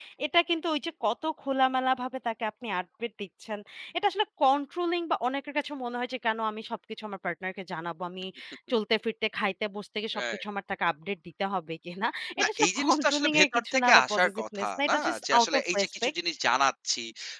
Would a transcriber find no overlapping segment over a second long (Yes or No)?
No